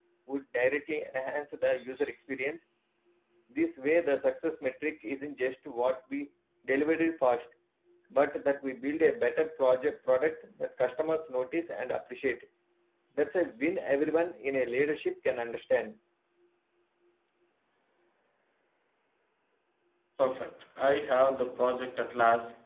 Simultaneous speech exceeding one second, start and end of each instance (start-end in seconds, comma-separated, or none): none